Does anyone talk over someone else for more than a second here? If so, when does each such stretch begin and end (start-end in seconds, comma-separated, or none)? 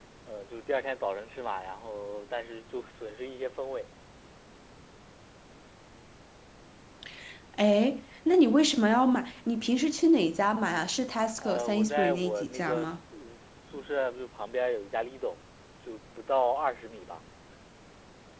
11.4-12.9